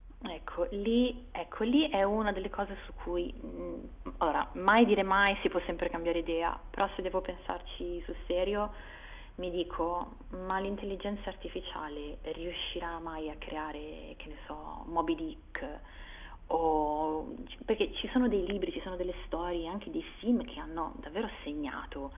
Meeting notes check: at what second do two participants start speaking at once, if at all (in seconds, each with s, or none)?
none